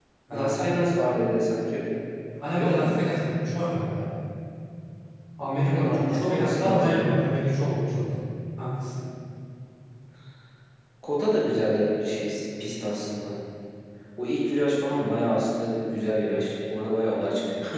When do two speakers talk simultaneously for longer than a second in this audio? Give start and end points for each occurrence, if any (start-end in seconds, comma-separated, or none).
5.7-7.2